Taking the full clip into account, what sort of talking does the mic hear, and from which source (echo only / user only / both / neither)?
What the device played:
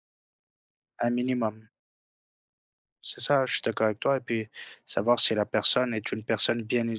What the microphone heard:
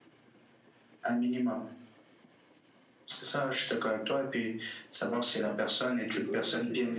both